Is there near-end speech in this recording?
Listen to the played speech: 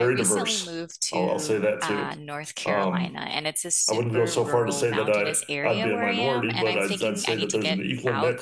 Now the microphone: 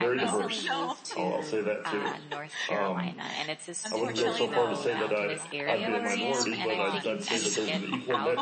Yes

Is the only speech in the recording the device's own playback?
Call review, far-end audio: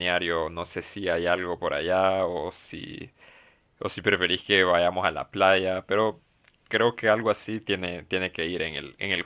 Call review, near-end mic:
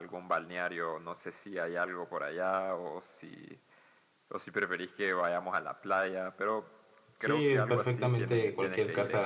No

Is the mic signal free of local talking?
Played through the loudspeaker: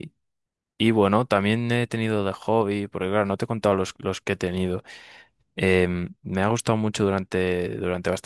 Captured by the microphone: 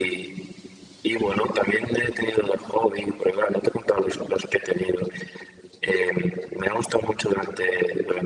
Yes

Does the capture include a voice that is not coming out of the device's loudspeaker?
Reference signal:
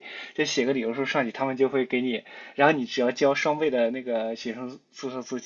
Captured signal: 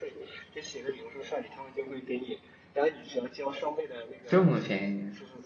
Yes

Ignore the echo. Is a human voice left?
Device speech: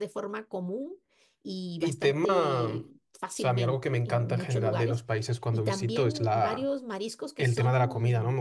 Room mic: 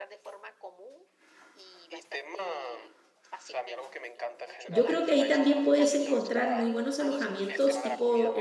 Yes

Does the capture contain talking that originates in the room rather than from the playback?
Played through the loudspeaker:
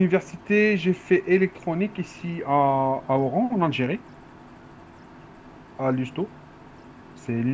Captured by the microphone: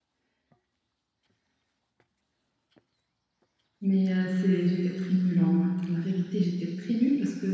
Yes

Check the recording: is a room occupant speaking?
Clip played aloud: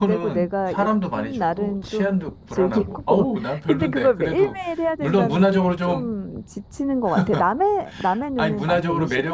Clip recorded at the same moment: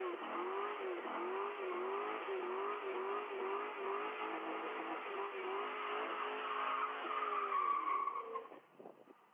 No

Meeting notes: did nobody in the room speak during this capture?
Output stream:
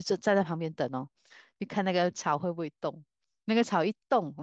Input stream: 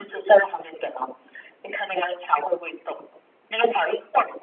Yes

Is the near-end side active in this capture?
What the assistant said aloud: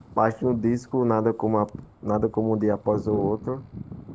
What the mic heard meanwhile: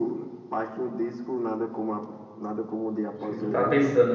Yes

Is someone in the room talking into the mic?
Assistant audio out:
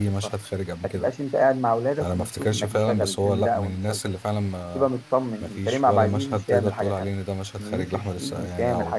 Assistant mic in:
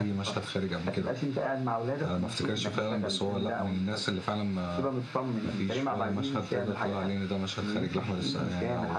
No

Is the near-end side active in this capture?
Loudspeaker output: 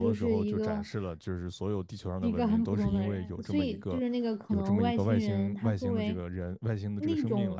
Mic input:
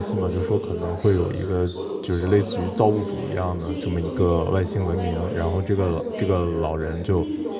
Yes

